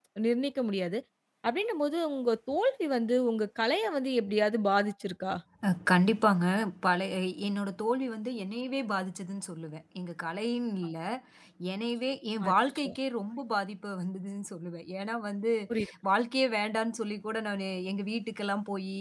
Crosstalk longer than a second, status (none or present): none